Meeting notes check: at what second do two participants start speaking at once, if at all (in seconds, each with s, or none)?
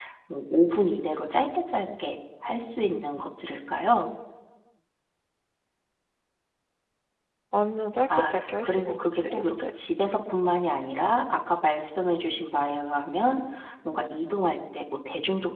8.3 s